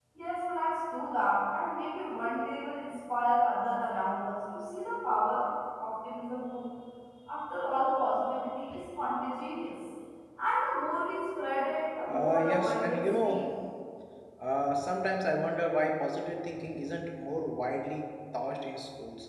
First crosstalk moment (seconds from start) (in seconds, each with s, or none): 12.1 s